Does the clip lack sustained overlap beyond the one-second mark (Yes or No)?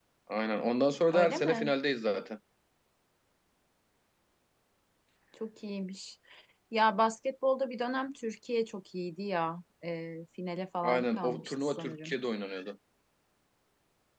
No